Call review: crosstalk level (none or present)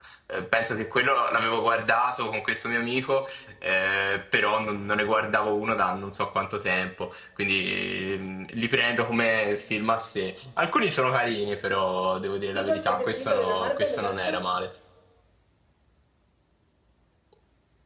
present